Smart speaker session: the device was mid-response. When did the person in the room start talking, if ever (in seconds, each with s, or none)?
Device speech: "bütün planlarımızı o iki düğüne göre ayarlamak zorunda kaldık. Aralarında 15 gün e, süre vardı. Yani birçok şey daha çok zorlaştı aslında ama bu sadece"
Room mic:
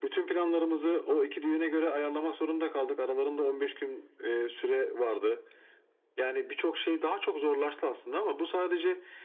none